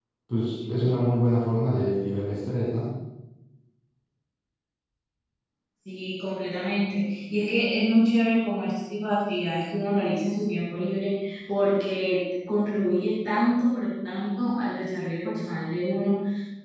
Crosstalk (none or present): none